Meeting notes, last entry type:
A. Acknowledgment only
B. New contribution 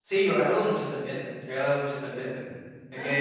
A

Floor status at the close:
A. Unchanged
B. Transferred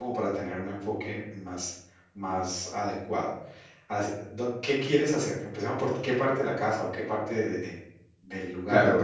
B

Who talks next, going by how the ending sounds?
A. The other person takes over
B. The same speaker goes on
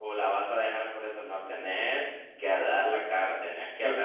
A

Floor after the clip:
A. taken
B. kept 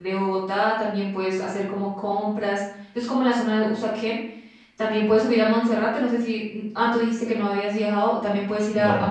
B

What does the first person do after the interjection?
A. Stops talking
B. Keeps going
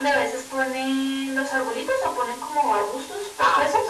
A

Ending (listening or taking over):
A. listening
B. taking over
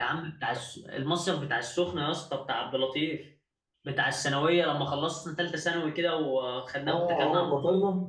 B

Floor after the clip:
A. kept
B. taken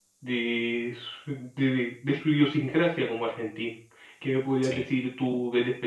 A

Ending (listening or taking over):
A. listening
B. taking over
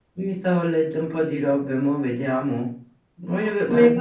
A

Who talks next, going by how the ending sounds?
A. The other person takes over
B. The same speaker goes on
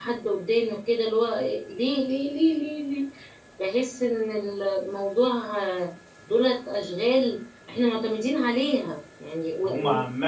A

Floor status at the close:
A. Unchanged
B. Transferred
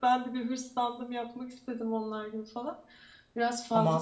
B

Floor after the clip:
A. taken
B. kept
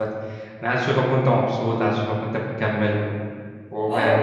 A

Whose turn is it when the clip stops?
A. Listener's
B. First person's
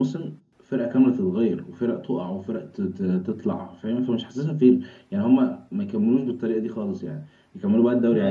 A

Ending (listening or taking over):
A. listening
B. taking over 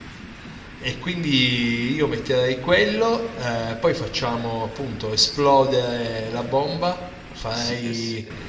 B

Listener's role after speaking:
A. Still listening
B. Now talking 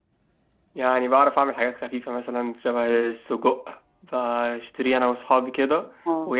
A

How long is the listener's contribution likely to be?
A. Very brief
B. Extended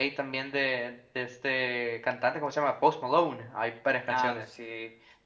B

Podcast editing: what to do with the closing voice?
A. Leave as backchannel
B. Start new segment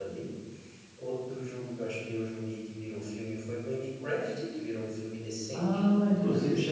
B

